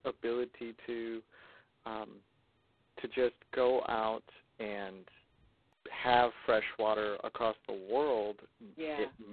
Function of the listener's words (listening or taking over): listening